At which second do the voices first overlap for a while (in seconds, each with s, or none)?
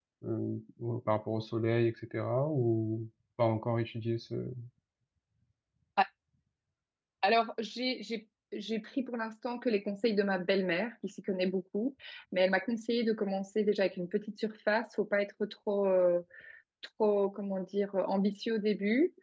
none